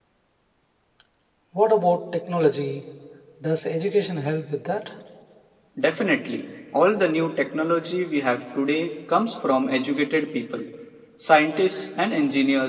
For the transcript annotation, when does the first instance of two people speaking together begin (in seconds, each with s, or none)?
none